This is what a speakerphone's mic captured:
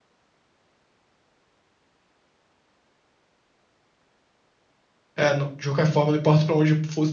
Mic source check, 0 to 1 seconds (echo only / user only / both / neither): neither